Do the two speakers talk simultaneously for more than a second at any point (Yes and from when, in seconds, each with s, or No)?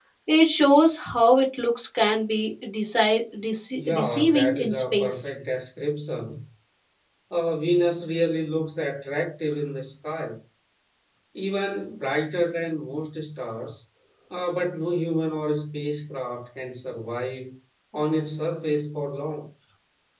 Yes, from 3.8 s